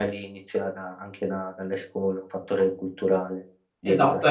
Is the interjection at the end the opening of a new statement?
Yes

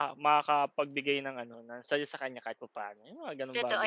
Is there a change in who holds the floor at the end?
Yes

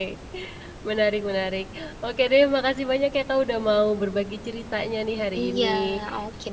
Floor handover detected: Yes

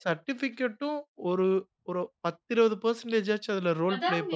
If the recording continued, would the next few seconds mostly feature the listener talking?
Yes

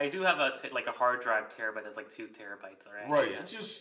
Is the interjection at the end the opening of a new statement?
Yes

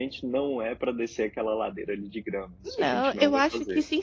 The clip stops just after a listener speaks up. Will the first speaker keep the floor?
No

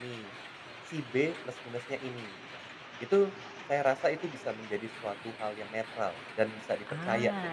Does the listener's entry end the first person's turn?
Yes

